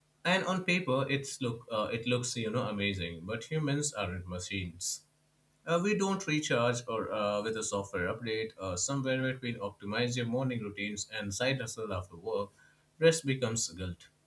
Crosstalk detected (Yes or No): No